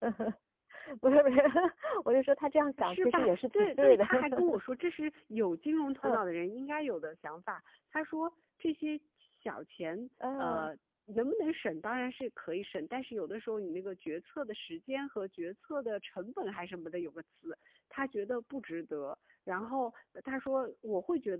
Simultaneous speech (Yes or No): Yes